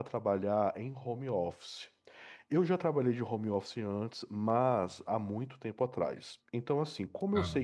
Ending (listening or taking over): listening